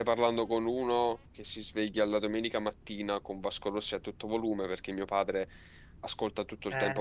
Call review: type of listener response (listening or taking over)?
listening